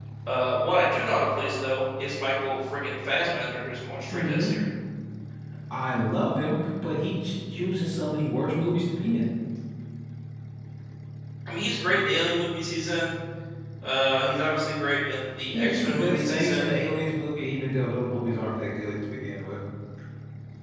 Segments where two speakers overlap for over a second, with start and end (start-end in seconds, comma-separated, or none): 15.5-16.7